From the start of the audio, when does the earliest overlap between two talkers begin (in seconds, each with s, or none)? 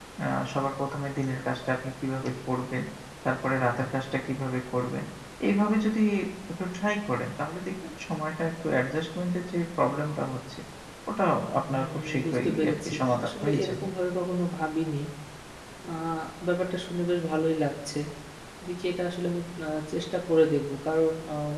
11.7 s